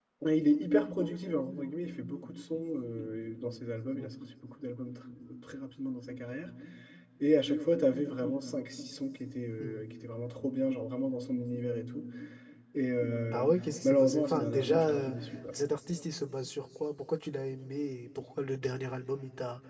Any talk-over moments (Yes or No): Yes